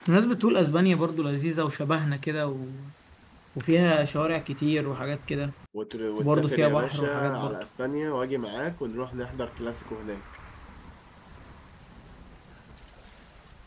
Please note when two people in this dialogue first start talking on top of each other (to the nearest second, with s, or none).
6 s